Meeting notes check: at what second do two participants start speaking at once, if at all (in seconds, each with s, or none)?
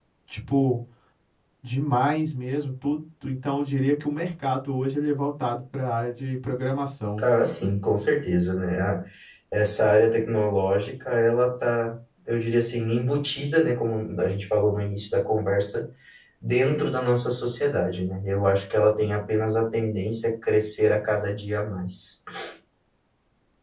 none